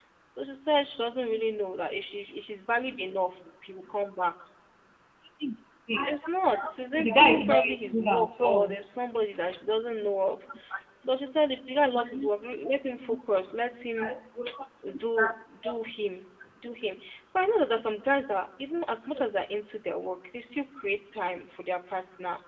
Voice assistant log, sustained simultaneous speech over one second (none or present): present